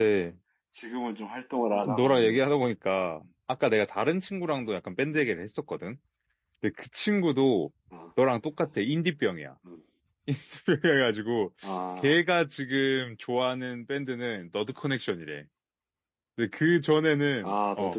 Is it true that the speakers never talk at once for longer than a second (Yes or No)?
Yes